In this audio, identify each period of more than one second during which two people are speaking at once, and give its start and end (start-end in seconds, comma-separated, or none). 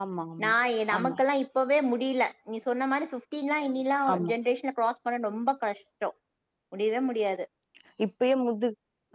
none